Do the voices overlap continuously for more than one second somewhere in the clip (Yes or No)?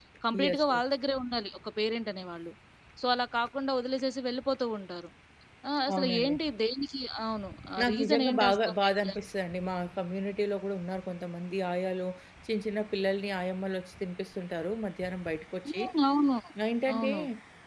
Yes